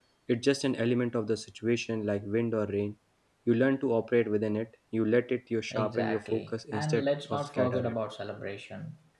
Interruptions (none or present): present